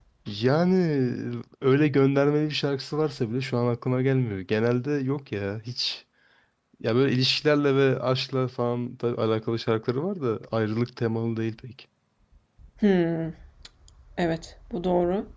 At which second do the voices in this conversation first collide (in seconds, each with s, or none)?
none